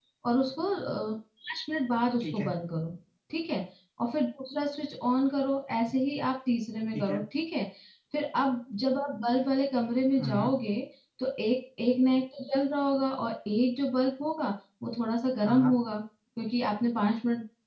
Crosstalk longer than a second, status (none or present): none